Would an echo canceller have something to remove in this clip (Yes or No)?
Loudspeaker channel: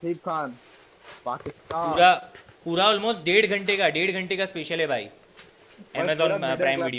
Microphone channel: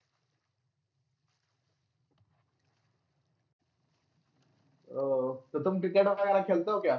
No